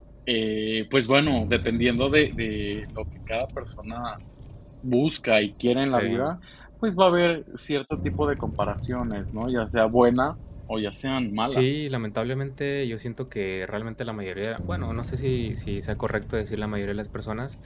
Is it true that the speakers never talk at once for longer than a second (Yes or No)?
Yes